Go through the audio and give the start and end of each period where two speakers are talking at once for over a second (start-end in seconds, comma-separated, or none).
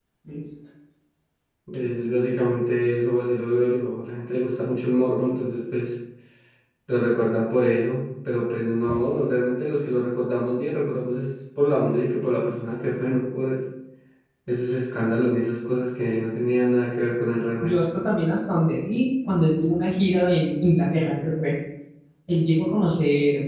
none